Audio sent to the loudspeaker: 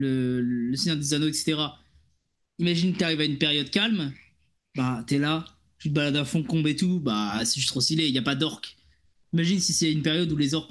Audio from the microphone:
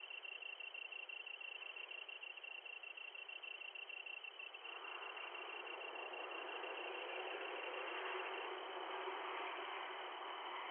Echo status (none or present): none